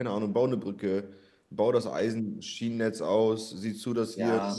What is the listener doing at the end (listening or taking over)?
listening